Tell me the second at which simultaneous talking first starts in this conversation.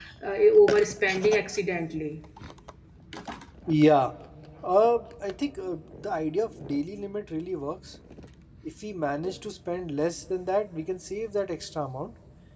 none

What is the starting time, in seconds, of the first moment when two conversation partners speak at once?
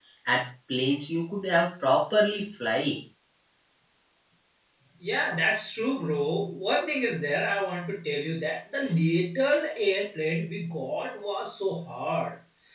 none

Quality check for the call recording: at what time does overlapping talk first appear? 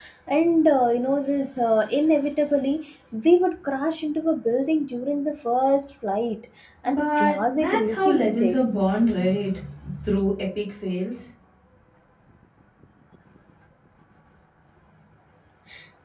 7 s

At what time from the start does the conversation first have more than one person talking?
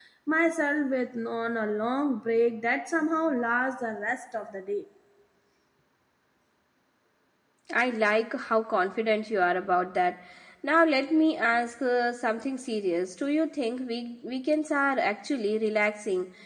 none

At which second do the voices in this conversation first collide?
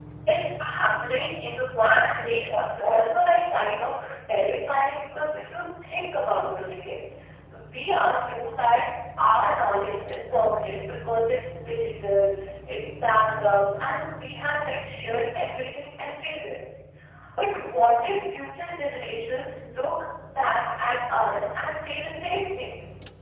2 s

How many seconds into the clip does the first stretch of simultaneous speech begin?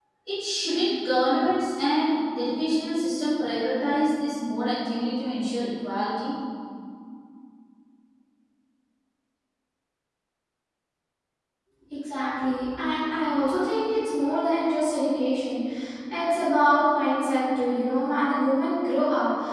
none

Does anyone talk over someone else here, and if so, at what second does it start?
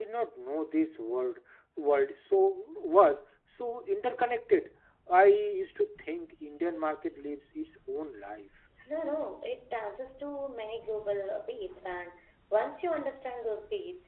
none

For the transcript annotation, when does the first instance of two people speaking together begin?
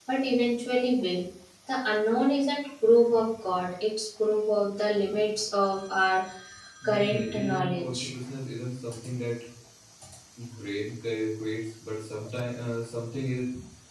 7 s

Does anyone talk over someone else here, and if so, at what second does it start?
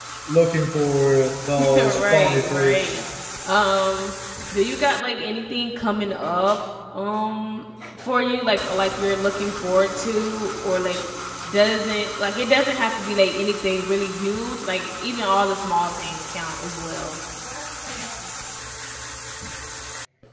2 s

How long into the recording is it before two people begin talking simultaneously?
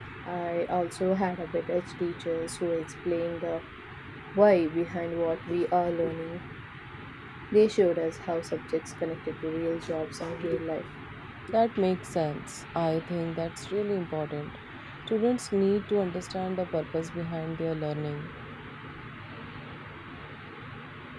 none

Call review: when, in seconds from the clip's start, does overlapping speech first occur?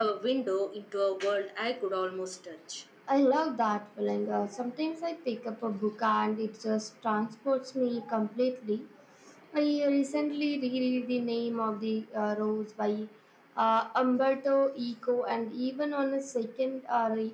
none

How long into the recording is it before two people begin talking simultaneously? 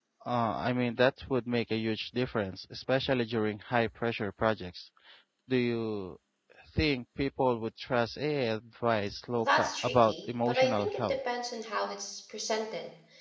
9 s

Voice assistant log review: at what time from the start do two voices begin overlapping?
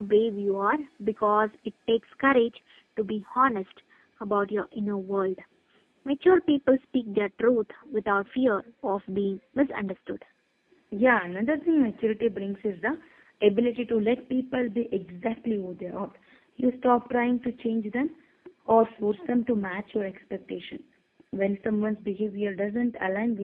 none

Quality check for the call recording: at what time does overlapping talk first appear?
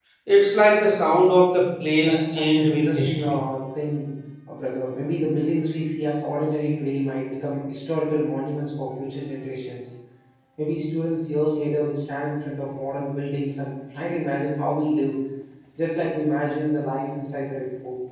2 s

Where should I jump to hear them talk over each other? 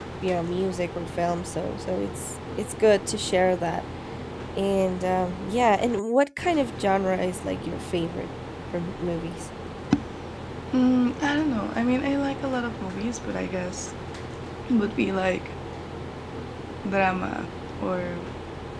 none

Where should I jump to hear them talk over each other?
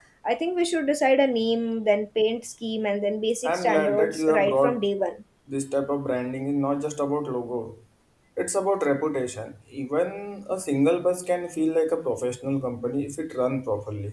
3 s

